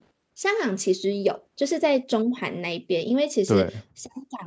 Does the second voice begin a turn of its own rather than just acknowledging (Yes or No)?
No